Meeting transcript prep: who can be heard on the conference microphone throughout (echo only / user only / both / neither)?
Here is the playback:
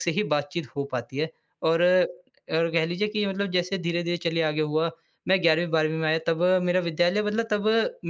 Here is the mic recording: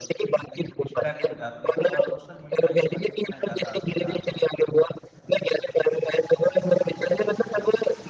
both